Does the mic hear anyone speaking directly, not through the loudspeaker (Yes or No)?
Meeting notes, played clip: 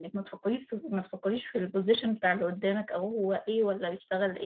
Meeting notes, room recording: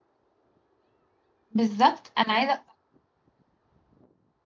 Yes